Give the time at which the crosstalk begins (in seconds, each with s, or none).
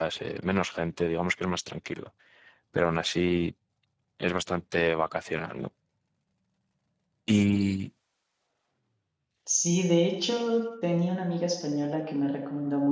none